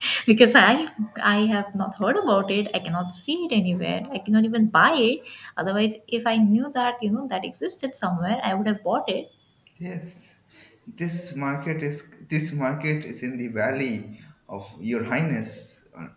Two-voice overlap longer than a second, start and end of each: none

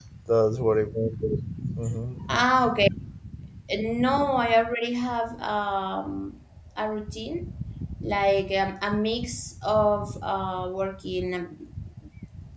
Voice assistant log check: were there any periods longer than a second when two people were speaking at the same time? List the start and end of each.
none

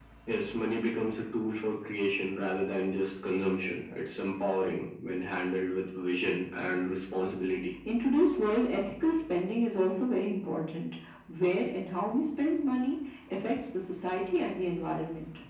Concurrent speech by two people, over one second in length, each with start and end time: none

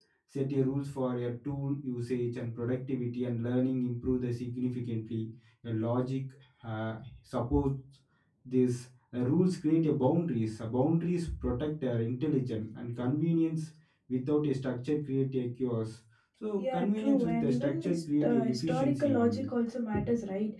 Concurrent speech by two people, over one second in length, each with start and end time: 16.6-19.4

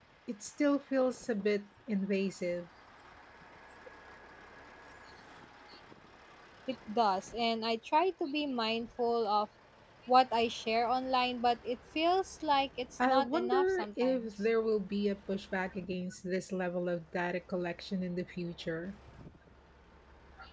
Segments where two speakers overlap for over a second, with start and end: 13.1-14.3

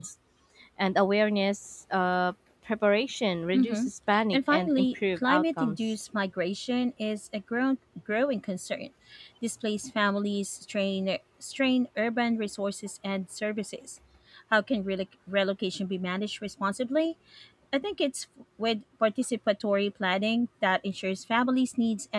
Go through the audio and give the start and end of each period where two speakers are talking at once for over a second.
4.3-5.8

